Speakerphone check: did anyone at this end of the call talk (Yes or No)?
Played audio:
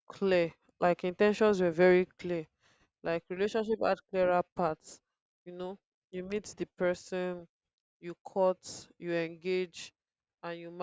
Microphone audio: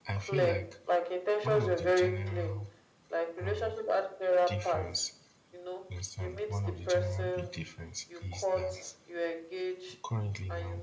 Yes